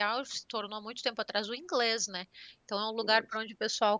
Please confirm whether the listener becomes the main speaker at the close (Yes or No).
No